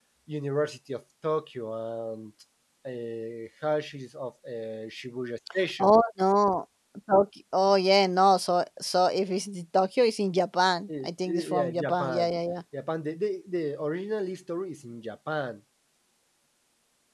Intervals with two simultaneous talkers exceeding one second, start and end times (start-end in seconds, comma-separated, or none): 11.0-12.3